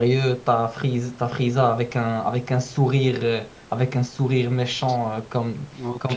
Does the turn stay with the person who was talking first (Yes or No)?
Yes